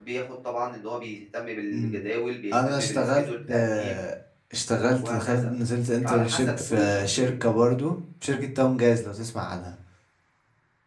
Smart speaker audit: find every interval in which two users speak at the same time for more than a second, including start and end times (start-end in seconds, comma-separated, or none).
2.5-4.0, 6.0-7.3